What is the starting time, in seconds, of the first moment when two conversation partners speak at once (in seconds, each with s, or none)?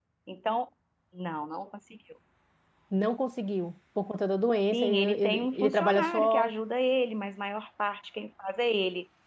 4.7 s